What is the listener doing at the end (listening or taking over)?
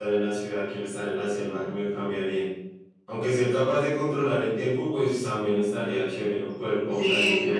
taking over